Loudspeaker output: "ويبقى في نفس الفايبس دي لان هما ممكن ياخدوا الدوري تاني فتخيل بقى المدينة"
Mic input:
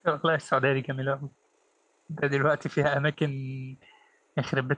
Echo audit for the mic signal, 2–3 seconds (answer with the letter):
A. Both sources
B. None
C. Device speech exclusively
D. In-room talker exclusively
D